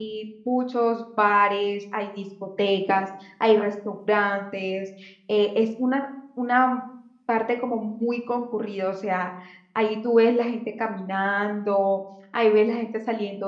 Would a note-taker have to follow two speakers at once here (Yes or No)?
No